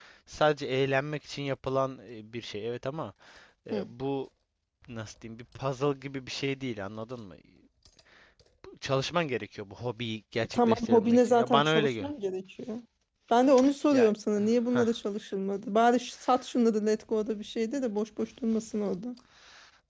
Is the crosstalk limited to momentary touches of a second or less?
No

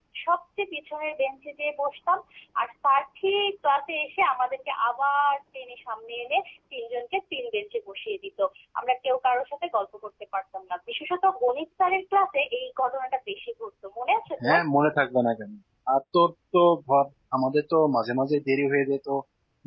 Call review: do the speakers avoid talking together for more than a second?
Yes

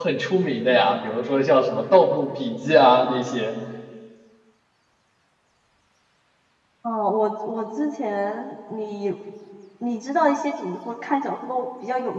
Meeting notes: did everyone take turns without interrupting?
Yes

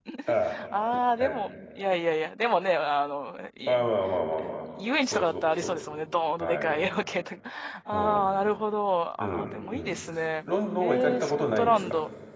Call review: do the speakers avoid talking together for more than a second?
No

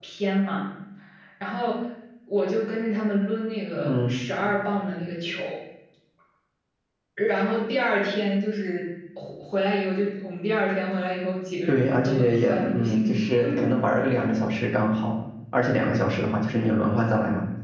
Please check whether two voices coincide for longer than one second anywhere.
Yes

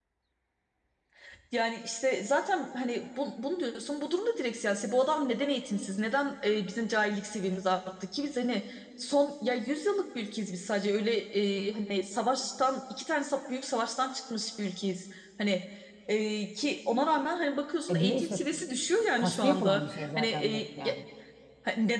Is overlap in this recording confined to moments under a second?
No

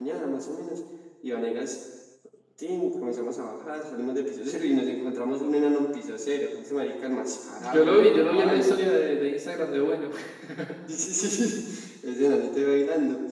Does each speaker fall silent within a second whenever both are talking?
No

